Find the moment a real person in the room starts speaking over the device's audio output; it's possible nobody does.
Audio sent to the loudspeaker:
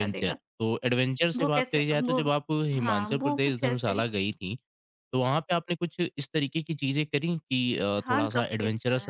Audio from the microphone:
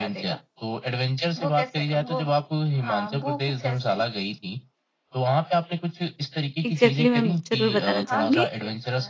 6.6 s

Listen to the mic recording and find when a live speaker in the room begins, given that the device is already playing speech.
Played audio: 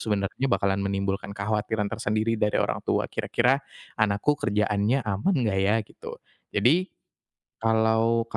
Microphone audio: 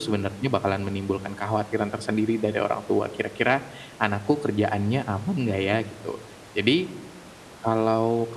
none

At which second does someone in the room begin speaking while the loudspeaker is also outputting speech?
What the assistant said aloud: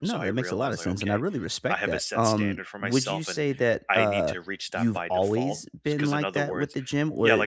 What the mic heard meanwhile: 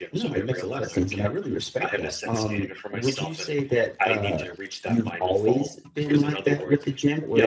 none

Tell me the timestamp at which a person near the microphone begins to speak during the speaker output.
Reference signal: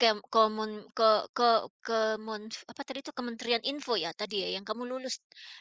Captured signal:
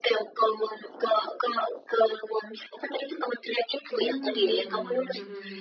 3.9 s

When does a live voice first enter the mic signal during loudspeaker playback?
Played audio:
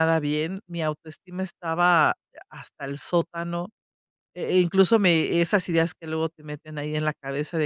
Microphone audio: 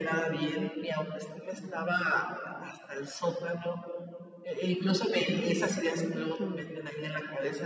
6.1 s

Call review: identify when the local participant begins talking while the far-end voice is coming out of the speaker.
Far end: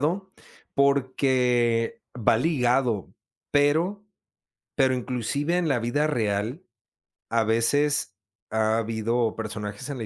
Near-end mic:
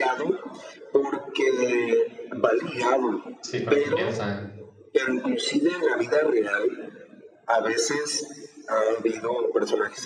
3.4 s

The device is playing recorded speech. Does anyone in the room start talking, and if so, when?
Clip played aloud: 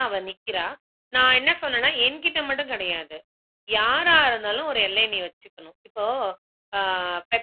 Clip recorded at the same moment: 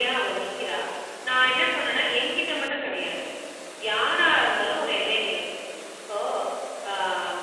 none

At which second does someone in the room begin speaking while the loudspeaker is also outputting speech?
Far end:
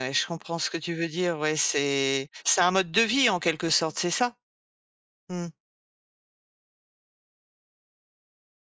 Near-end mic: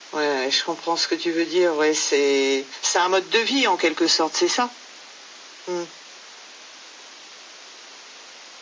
none

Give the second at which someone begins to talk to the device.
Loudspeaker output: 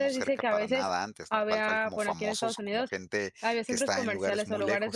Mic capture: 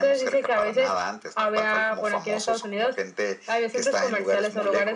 none

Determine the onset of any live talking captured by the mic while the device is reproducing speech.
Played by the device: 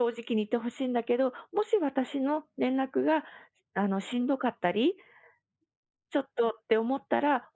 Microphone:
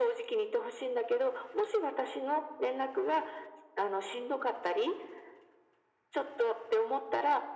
none

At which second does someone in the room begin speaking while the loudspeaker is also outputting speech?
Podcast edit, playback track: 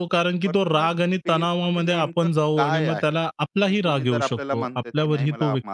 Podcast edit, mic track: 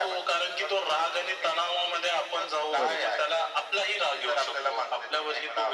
2.8 s

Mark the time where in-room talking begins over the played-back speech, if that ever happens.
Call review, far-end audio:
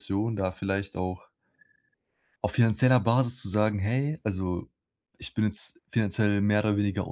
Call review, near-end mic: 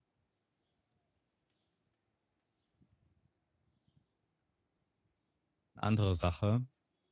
5.8 s

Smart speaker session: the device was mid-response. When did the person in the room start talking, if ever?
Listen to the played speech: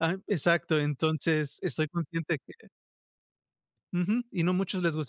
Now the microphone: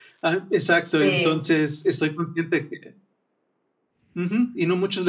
0.8 s

